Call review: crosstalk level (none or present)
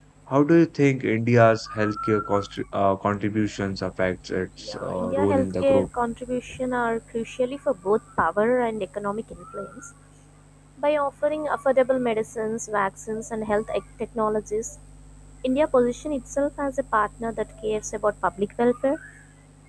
present